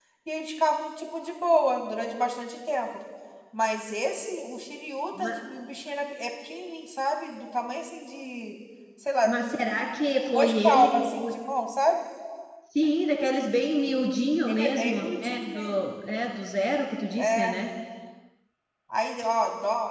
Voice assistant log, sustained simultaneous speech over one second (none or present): present